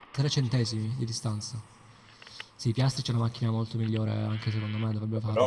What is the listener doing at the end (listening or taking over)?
listening